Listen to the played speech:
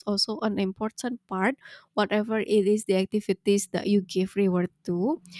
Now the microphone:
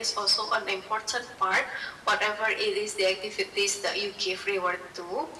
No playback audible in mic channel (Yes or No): No